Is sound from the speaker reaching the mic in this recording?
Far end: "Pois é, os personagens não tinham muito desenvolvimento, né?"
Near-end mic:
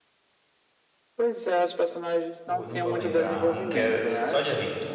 Yes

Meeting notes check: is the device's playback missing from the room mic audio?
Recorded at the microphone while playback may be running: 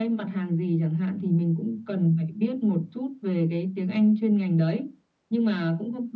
No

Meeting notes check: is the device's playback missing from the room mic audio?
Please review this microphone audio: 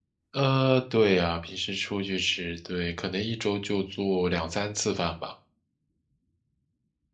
Yes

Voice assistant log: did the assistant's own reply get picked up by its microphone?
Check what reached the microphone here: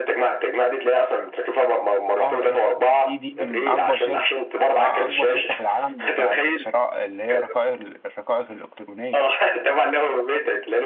Yes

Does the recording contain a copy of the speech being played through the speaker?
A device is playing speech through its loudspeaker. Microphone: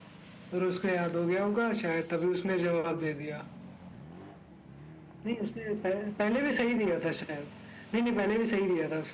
Yes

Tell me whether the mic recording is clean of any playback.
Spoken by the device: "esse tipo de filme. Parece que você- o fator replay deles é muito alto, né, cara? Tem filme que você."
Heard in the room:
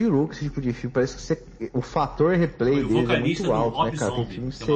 No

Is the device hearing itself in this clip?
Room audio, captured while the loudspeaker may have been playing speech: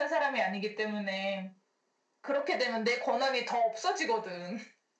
Yes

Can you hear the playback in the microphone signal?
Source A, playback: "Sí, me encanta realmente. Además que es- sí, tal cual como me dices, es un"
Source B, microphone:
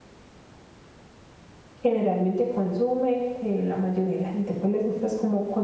No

